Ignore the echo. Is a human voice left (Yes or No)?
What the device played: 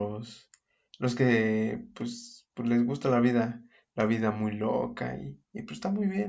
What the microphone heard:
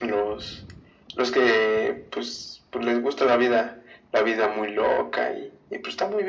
No